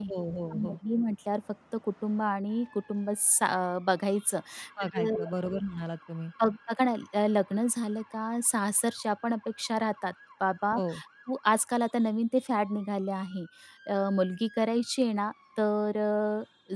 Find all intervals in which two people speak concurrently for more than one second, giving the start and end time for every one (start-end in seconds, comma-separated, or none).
none